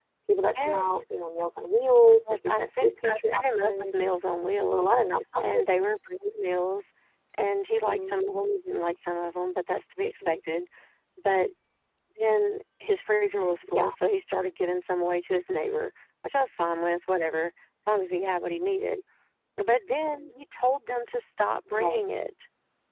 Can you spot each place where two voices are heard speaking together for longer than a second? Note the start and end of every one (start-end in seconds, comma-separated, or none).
2.5-4.0